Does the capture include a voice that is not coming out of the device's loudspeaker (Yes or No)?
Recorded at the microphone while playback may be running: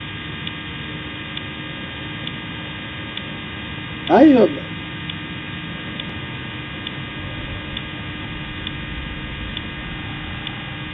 Yes